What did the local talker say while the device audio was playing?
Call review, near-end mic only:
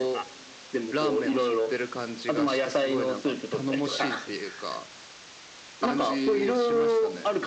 none

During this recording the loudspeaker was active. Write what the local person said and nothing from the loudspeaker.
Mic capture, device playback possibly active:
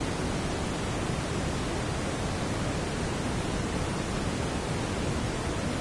none

